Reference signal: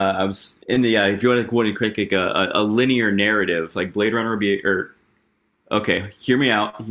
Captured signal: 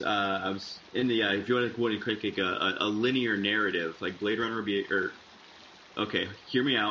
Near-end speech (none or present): none